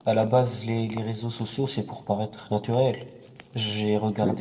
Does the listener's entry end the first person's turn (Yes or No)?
No